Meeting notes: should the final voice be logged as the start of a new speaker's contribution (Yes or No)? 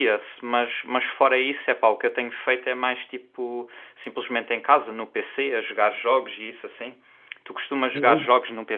No